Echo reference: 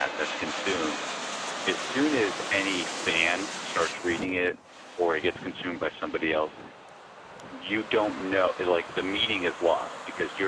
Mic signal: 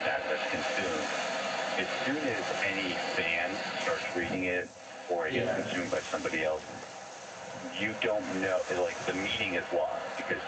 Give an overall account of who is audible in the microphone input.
both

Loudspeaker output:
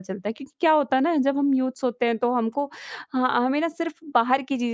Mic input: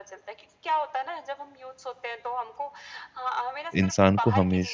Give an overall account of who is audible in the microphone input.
both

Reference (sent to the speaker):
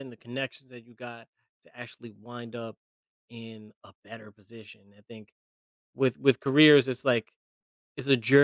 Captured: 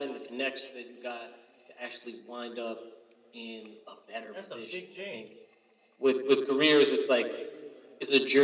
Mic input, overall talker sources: both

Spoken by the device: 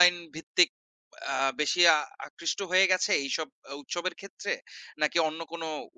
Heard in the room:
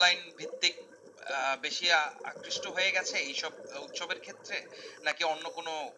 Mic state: echo only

